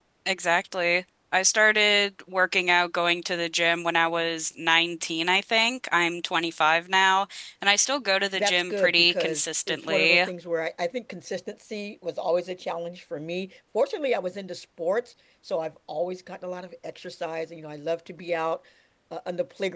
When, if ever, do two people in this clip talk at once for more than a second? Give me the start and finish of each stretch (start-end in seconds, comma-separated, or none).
8.4-10.2